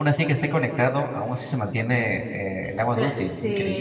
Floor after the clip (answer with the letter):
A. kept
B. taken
B